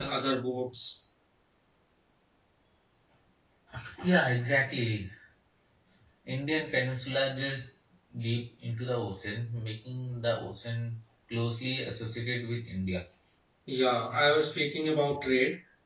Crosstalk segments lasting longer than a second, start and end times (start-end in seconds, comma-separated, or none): none